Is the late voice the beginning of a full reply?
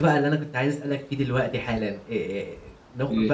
No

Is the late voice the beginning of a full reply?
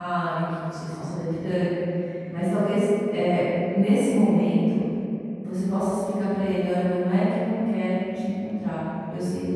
No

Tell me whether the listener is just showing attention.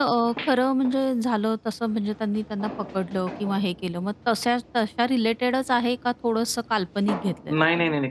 No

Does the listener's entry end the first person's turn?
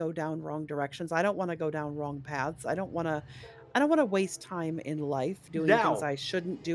No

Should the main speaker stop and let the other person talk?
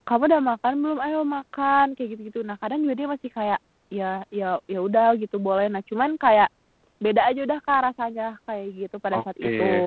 Yes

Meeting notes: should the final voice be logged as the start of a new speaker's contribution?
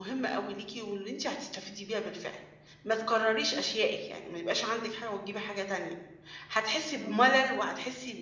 No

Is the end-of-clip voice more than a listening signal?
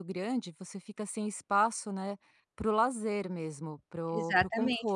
Yes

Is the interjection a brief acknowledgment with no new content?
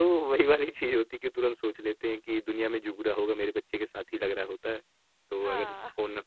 Yes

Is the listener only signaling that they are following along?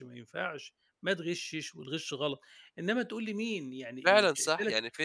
No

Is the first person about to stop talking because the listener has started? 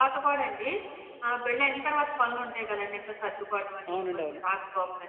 No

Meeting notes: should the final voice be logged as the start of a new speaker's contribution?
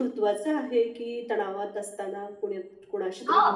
Yes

